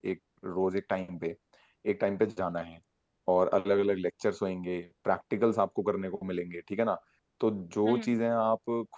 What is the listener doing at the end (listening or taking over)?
listening